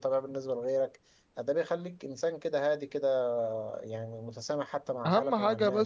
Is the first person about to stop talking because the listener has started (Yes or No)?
Yes